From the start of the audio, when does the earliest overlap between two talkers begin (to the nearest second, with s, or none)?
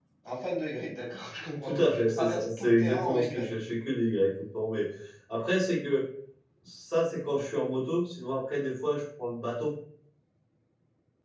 2 s